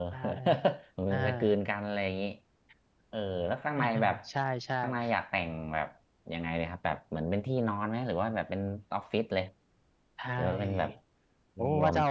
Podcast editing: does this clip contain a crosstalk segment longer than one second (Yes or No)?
No